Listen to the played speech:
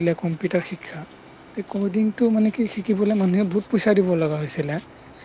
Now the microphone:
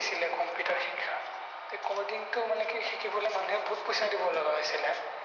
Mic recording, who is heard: echo only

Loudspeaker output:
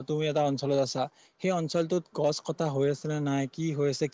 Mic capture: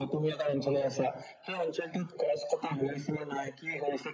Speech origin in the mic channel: echo only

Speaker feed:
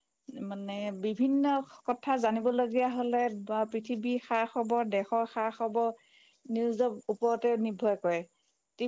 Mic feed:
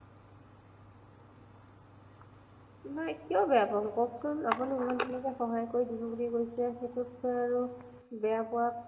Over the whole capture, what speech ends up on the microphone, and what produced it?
user only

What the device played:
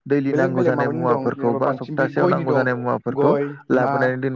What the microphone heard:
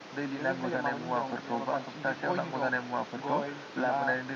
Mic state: echo only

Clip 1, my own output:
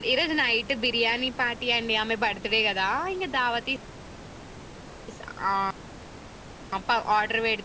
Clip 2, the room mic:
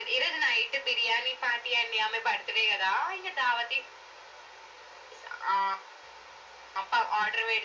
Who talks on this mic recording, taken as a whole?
echo only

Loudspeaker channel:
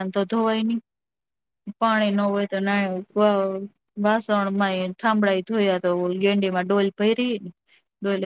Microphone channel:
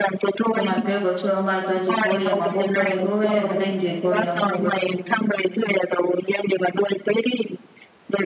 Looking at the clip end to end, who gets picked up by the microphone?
both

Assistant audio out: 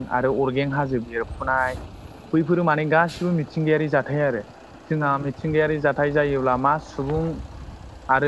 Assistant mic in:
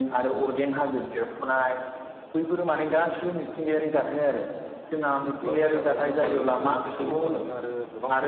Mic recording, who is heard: both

